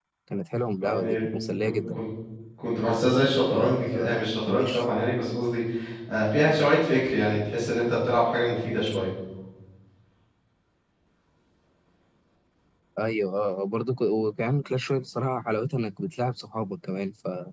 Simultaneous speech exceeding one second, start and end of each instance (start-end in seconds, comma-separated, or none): 3.5-4.8